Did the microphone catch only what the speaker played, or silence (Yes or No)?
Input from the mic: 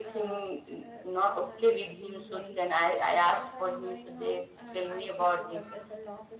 No